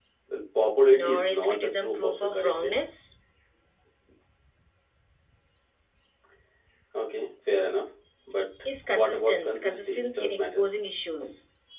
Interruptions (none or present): present